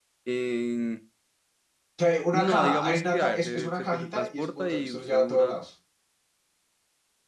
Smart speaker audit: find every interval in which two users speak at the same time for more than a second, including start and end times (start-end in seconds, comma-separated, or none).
2.3-5.5